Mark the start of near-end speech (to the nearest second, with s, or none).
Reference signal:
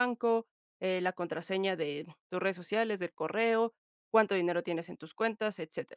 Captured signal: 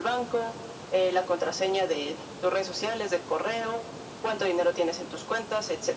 none